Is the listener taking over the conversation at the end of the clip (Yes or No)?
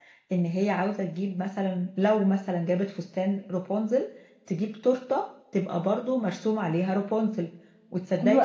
No